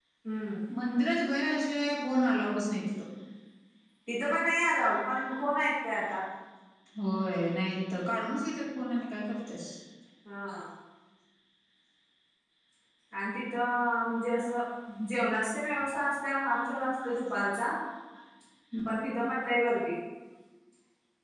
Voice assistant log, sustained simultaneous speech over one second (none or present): none